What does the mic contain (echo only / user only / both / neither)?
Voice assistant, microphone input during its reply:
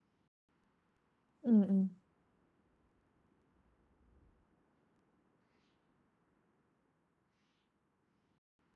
user only